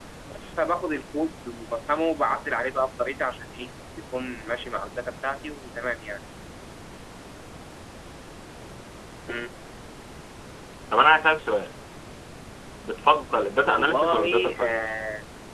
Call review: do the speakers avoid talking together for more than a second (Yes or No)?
No